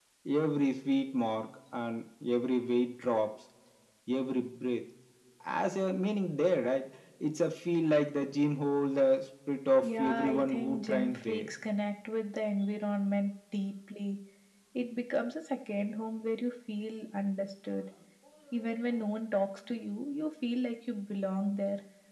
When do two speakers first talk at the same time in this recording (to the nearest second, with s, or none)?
10 s